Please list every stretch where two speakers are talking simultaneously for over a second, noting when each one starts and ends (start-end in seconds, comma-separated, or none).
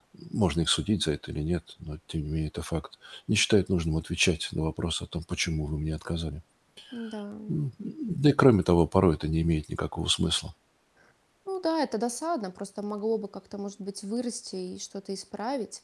none